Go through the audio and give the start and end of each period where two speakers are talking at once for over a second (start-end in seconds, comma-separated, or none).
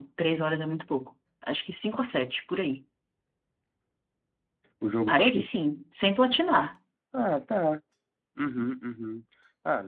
none